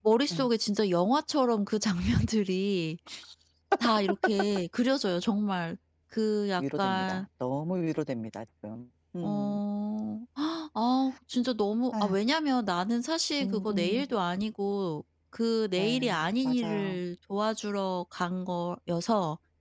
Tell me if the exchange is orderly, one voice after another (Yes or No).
No